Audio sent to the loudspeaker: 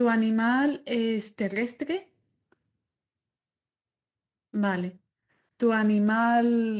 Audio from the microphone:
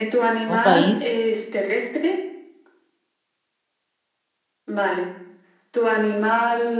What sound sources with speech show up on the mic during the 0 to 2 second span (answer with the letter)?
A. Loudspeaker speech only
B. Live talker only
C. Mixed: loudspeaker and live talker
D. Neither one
C